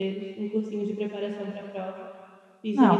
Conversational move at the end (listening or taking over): taking over